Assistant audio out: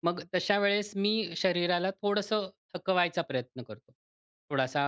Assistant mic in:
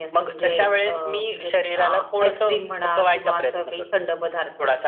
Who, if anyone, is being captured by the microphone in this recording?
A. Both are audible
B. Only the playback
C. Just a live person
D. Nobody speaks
A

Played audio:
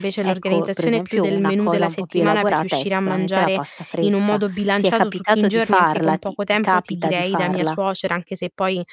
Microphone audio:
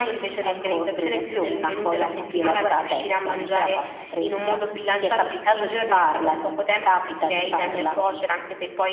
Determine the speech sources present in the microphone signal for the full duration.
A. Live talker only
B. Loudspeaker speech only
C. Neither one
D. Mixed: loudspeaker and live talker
B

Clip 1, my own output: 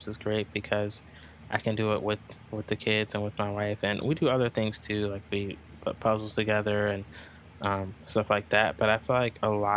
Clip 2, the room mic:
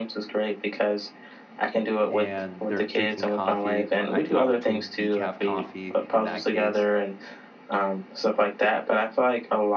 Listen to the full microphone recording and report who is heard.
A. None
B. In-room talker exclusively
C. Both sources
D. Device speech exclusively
C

